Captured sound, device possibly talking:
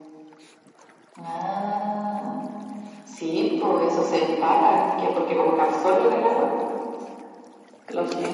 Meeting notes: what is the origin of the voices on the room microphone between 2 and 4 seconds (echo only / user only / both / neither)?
echo only